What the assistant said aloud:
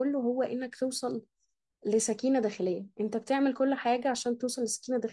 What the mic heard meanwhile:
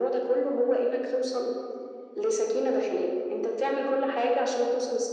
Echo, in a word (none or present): present